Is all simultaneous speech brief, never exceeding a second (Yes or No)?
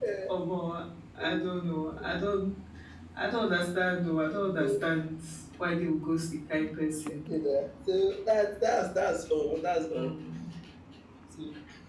Yes